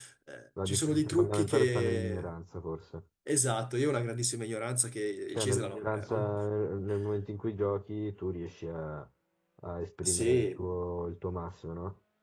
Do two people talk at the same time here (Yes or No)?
Yes